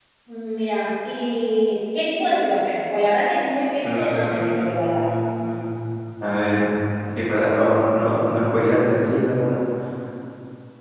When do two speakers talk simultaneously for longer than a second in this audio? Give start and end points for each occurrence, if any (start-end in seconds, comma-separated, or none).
3.8-5.1